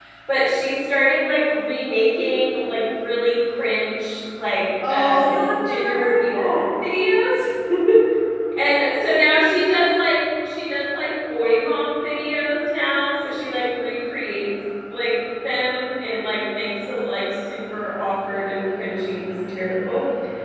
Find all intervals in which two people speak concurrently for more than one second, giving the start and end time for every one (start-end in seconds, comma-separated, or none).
4.9-6.6